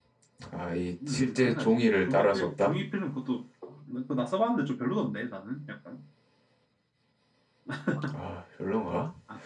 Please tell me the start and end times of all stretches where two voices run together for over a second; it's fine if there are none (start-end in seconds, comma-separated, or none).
1.1-2.8